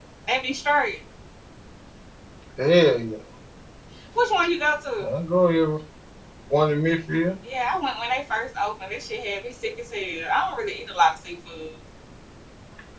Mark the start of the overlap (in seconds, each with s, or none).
none